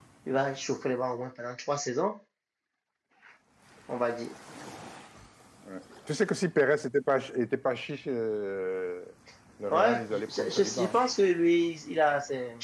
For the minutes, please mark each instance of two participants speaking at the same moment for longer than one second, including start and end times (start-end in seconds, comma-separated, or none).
9.7-11.0